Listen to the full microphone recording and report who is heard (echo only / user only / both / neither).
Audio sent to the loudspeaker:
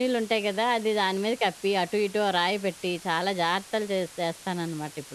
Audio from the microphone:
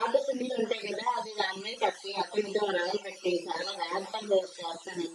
echo only